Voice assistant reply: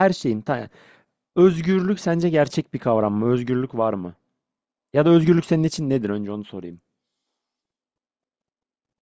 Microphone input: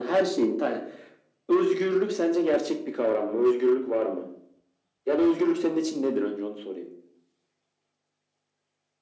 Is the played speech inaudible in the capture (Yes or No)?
No